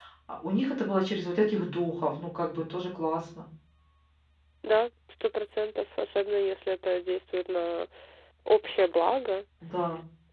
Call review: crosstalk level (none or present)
none